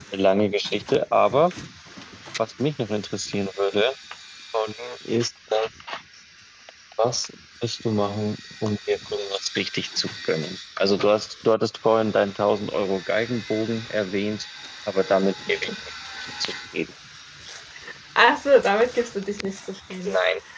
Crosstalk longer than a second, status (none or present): none